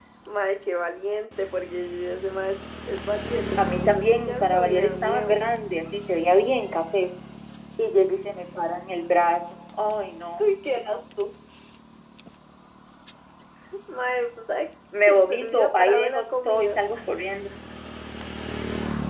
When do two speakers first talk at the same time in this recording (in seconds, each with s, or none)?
3.6 s